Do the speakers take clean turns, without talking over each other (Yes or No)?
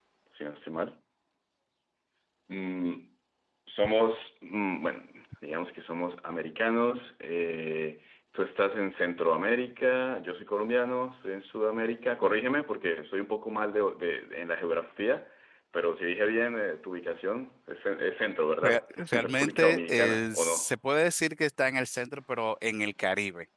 No